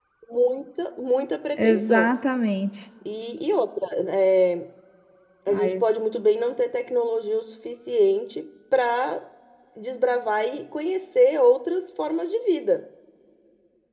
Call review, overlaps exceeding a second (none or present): none